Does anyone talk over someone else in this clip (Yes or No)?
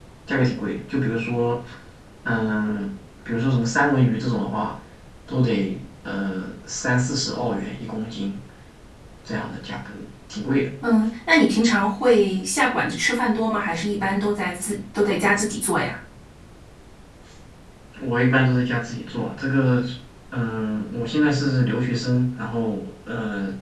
No